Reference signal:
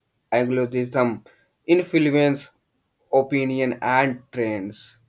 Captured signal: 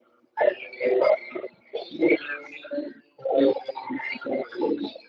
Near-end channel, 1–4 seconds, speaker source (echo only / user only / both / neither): echo only